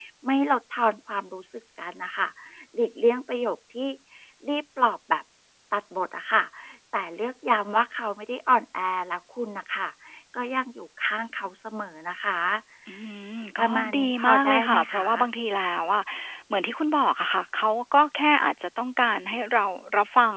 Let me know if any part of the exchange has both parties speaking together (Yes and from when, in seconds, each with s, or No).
Yes, from 13.6 s